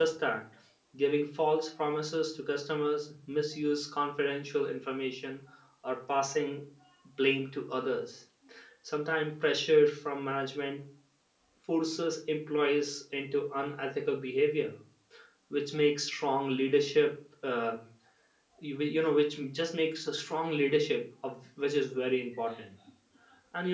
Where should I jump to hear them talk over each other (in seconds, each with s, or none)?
none